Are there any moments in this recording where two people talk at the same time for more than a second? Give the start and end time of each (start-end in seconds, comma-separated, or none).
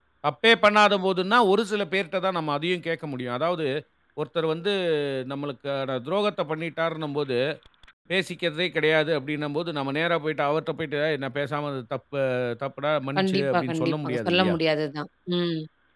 13.2-14.6